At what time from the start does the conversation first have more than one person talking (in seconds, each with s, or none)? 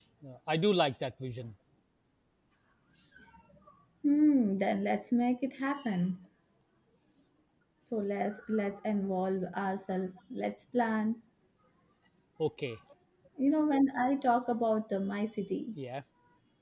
none